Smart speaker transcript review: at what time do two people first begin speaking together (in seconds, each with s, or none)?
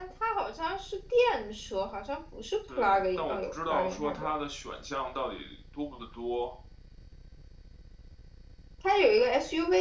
2.7 s